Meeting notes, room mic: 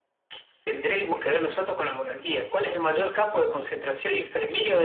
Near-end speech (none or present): none